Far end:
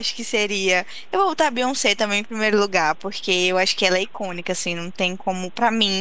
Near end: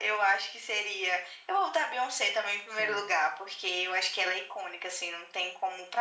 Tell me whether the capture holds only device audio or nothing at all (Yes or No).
No